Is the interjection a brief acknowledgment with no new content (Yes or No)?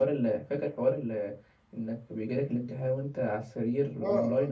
No